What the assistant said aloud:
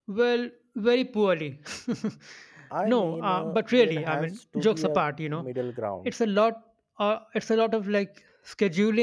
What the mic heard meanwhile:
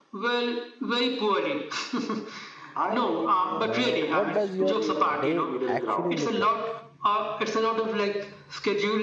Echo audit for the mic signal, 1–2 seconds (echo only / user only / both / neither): echo only